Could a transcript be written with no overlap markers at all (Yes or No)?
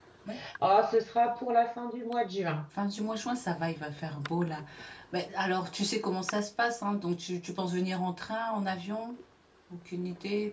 Yes